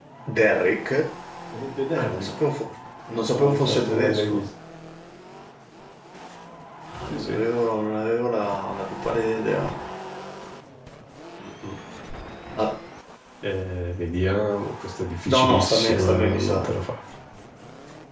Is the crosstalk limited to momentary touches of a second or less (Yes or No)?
No